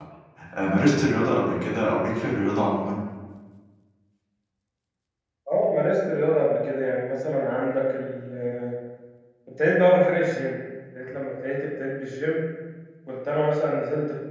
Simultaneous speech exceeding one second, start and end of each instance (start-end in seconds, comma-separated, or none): none